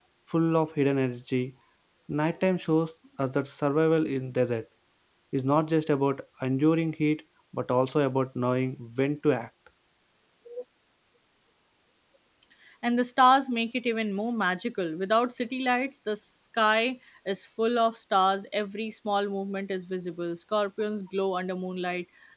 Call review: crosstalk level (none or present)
none